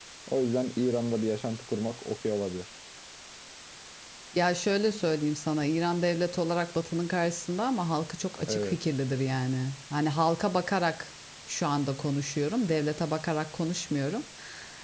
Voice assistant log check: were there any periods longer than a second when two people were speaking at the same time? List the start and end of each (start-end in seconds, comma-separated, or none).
none